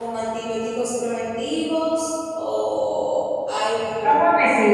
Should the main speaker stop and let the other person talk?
Yes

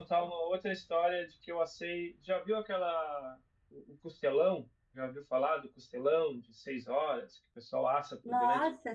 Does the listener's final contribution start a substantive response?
Yes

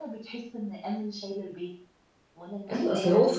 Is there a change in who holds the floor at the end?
Yes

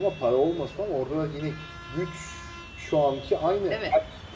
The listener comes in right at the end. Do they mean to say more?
No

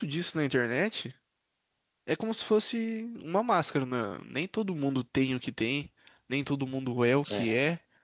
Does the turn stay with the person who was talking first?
Yes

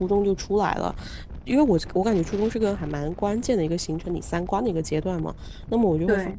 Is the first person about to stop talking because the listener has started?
No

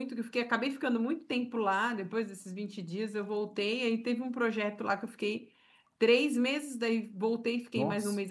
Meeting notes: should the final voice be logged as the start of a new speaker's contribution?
No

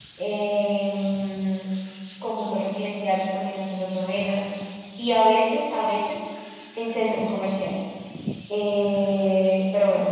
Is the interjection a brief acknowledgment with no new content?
Yes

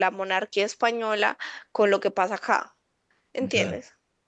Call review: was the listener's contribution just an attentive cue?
No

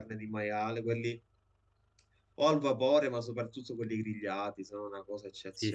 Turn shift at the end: Yes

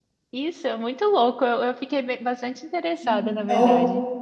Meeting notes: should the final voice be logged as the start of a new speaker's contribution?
Yes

